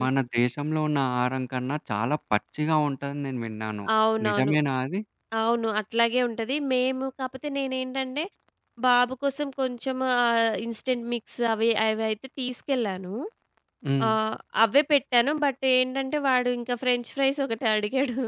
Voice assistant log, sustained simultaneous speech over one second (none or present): none